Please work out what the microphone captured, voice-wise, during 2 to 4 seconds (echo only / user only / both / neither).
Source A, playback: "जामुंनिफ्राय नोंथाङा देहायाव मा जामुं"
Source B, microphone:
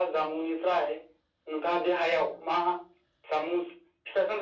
echo only